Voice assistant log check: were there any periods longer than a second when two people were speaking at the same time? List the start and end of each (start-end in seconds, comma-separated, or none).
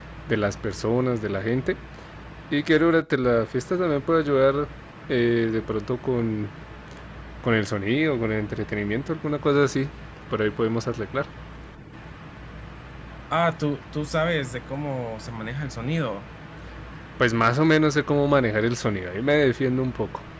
none